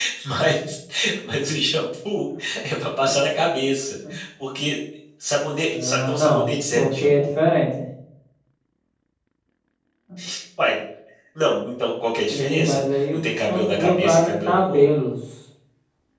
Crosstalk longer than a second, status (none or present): present